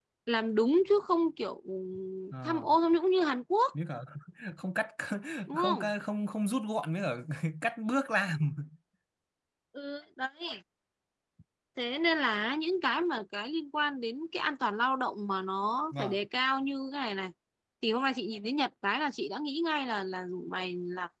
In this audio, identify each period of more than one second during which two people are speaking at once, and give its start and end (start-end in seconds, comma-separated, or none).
none